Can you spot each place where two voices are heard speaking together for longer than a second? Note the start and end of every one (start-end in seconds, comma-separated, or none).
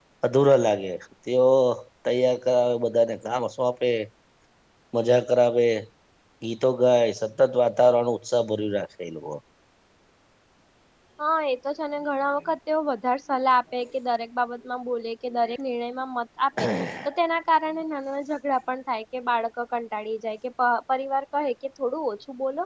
none